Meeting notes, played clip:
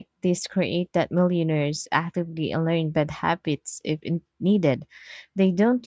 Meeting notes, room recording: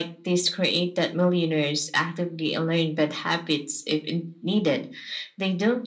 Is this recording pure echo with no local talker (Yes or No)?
Yes